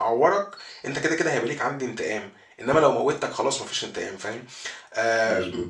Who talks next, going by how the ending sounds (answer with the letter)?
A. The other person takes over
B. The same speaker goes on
B